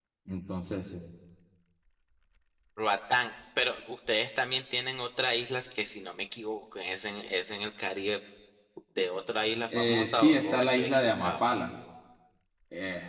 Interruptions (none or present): present